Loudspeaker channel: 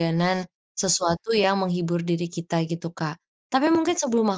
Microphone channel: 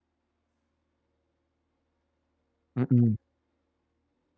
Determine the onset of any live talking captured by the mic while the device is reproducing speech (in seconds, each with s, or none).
2.8 s